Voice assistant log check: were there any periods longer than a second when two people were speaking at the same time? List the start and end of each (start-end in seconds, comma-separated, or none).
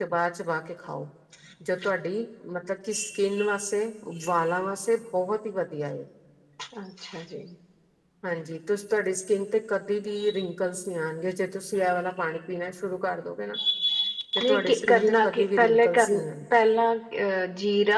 14.4-16.1